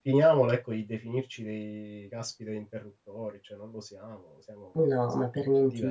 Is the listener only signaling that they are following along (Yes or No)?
No